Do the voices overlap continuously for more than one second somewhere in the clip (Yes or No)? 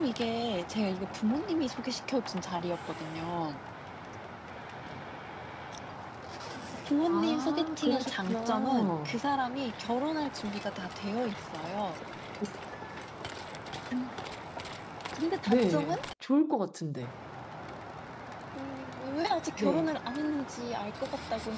Yes